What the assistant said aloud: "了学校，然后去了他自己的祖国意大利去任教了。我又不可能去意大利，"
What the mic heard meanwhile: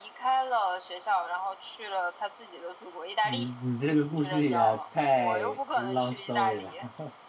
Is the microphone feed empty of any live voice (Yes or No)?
No